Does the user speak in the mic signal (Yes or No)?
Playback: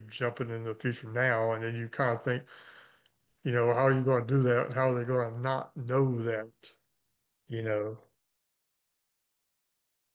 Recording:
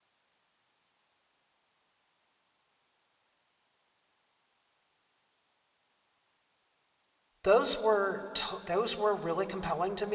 Yes